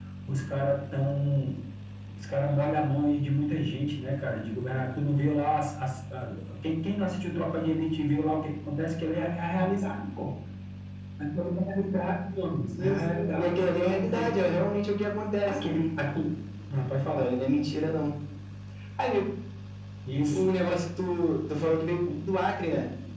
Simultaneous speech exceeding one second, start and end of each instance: 12.8-14.3

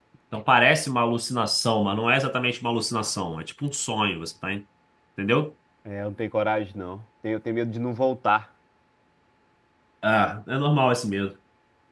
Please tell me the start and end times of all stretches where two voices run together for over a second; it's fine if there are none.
none

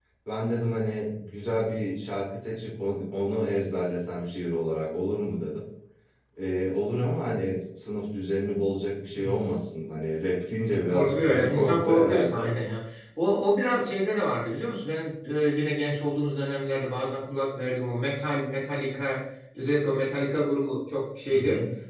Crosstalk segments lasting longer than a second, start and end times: 10.9-12.5

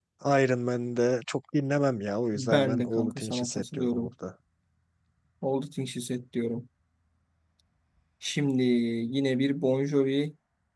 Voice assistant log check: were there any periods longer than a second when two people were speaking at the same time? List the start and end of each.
2.4-4.1

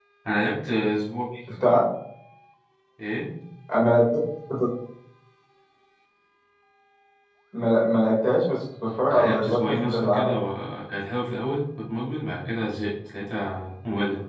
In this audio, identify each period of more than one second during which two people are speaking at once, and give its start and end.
9.1-10.3

